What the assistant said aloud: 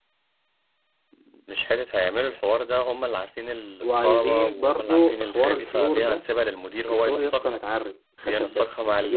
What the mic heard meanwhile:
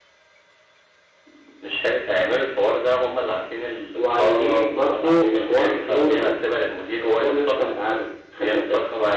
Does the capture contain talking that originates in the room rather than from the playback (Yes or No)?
No